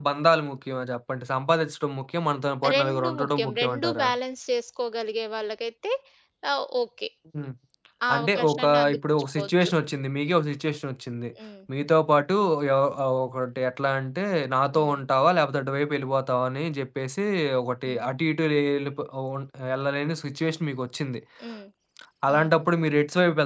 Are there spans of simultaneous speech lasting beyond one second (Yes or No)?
Yes